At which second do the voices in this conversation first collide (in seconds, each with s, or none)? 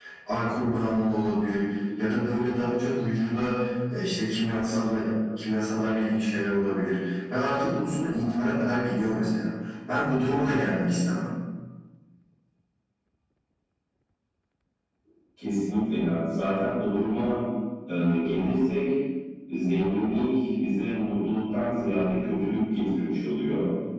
none